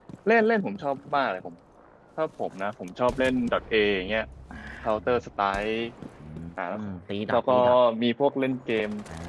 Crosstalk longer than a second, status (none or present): none